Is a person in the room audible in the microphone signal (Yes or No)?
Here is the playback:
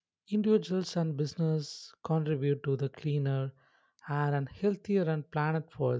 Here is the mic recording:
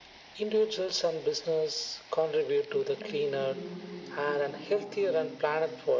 Yes